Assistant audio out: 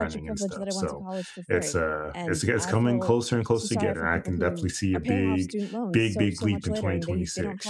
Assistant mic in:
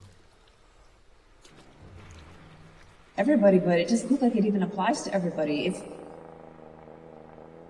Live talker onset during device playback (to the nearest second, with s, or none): 3 s